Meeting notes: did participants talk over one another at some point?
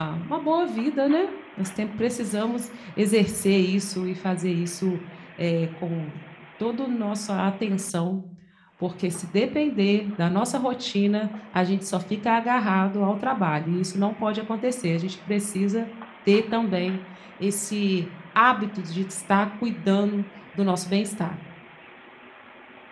No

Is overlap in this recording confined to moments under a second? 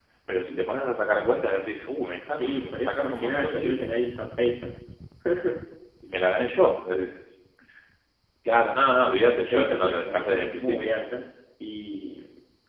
No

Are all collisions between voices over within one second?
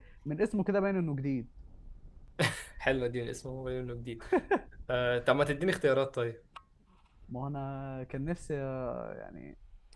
Yes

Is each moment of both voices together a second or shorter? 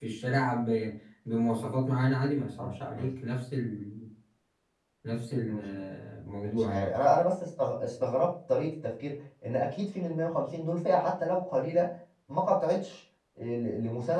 Yes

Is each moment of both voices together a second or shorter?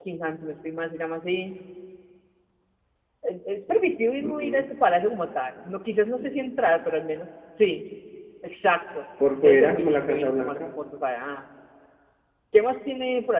No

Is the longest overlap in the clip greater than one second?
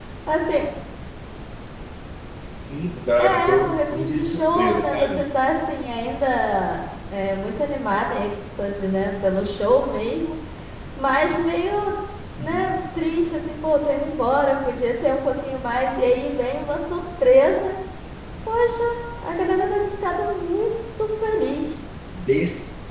Yes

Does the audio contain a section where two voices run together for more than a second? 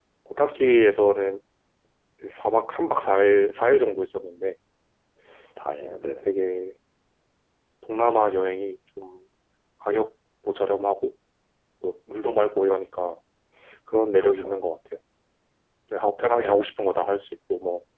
No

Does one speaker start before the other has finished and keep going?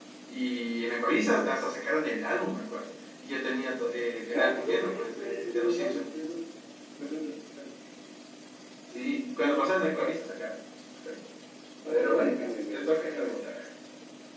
Yes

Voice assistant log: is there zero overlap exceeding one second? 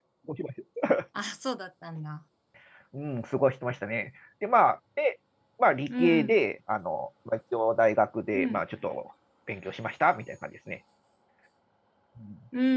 Yes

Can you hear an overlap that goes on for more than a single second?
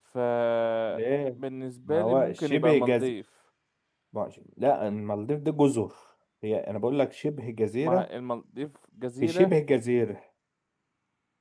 Yes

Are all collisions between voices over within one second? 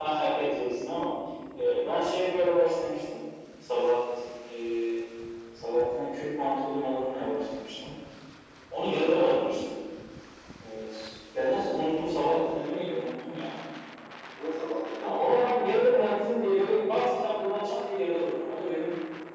No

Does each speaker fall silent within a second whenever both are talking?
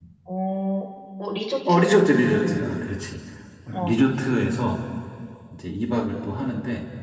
Yes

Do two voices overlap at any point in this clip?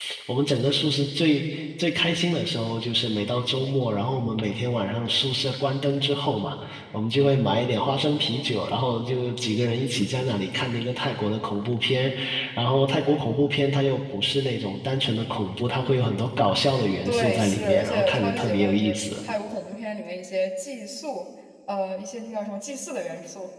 Yes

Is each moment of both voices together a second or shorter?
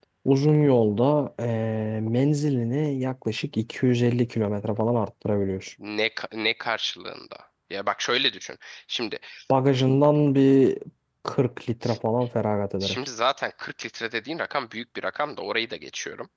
Yes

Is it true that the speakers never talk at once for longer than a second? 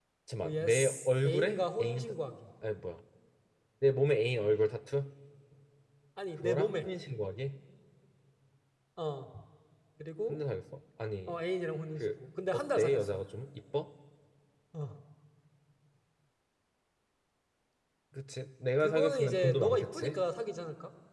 No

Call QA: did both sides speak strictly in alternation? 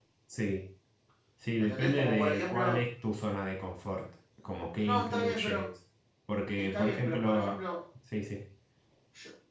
No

